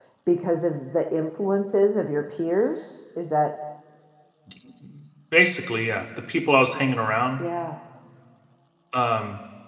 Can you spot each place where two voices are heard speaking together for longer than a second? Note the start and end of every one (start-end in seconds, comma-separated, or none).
none